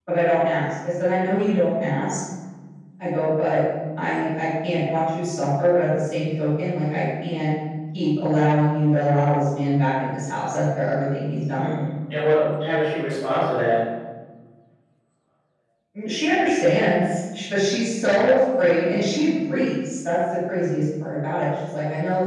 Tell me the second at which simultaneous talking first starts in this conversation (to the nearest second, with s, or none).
none